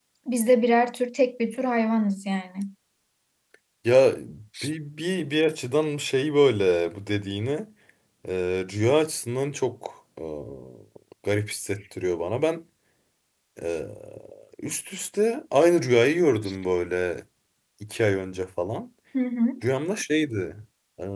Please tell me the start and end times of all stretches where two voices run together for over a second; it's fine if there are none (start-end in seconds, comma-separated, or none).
none